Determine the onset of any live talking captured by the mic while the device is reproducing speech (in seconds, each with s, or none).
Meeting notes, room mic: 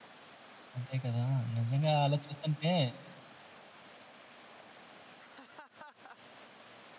0.8 s